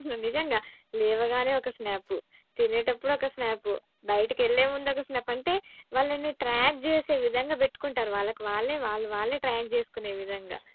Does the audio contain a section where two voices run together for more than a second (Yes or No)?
No